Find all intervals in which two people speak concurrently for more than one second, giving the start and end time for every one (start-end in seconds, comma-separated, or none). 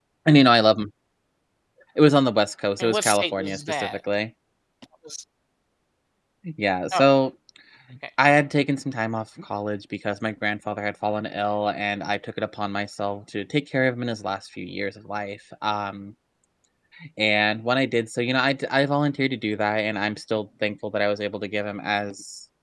2.8-4.0